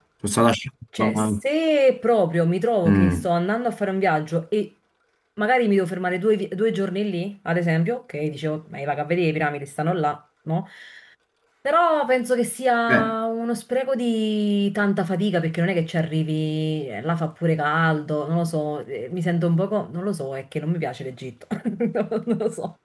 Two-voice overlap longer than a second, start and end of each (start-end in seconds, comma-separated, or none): none